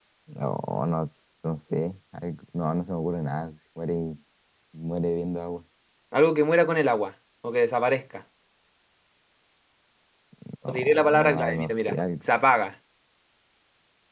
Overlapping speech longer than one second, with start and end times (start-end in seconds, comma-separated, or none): 10.7-12.3